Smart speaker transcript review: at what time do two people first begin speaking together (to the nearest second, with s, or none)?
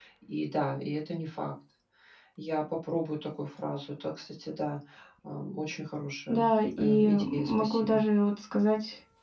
6 s